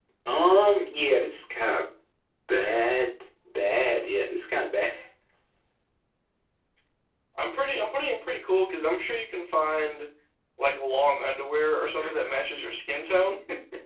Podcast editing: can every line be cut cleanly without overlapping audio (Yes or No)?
Yes